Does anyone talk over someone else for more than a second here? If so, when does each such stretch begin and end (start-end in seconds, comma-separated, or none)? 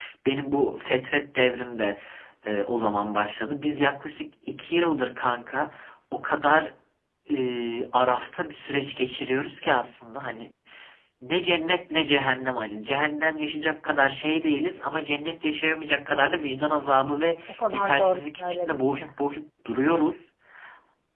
17.7-19.1